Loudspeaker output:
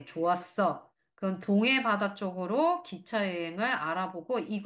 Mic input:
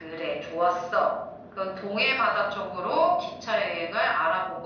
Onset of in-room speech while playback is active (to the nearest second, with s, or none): none